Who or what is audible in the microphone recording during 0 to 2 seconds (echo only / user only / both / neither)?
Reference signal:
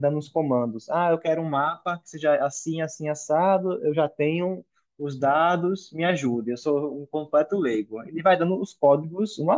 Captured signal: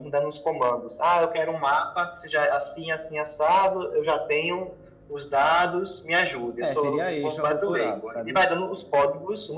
echo only